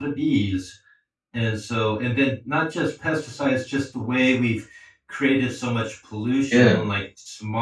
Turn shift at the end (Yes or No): No